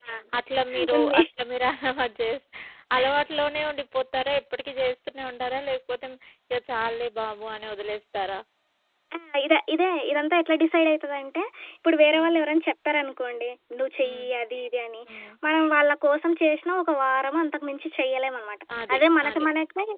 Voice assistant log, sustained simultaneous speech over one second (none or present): none